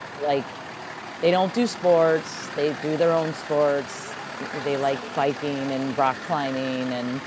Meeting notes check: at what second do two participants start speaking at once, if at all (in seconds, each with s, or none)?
none